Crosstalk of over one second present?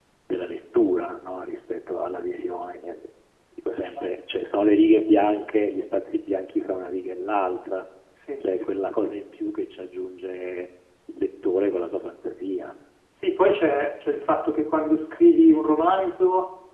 No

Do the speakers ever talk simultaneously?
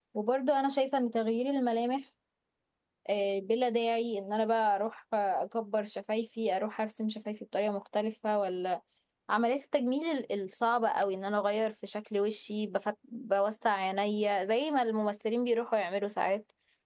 No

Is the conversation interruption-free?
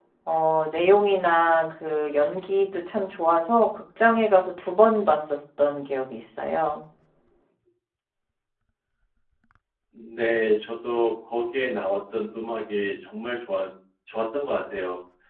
Yes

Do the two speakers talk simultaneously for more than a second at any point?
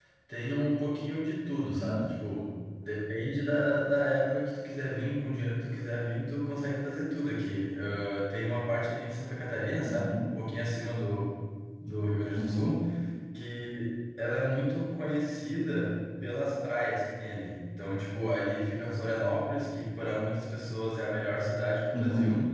No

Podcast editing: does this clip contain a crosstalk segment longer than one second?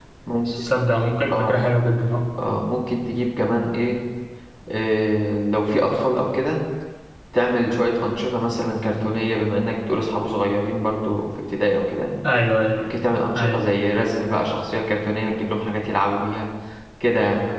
No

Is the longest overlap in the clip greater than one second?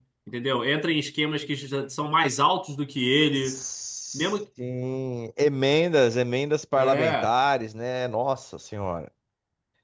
No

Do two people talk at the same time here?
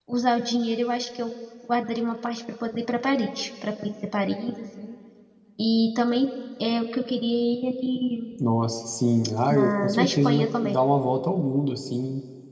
Yes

